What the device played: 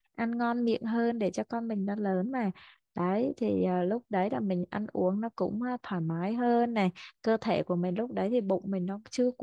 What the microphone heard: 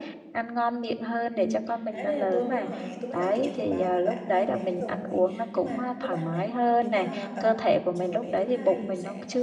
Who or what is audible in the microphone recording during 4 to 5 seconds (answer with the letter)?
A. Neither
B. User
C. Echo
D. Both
D